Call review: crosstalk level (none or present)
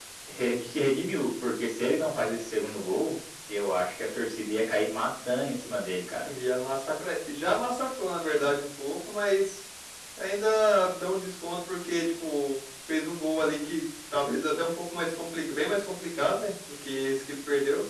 none